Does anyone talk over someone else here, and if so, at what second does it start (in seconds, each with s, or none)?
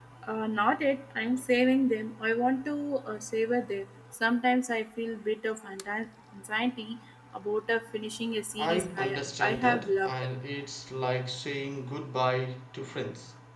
8.6 s